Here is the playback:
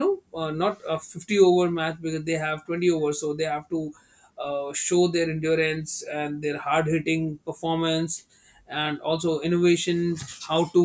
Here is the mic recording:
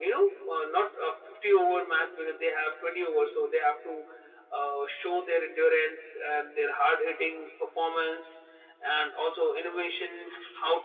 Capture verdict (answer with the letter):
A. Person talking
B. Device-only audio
B